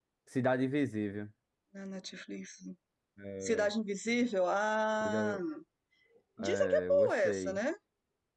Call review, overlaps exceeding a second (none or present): present